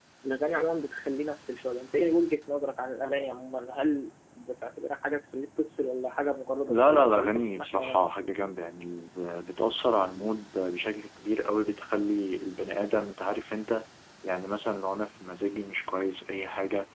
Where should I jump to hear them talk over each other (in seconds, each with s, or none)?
6.7 s